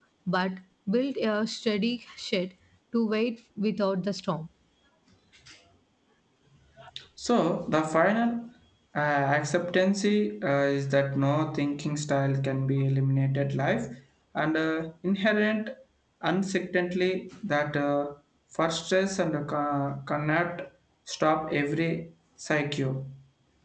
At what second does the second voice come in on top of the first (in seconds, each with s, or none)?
none